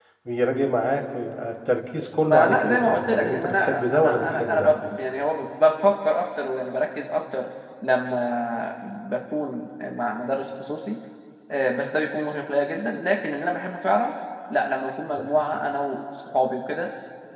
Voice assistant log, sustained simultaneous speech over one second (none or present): present